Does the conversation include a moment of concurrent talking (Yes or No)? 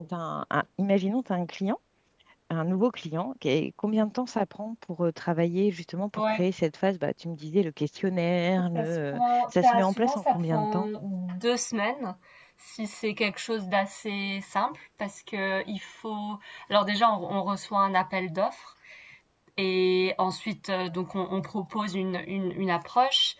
Yes